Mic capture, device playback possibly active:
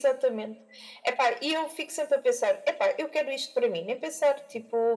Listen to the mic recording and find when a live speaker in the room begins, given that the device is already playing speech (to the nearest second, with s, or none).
none